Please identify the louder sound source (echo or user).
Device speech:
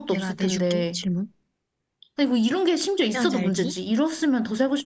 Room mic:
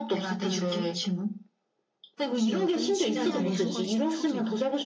echo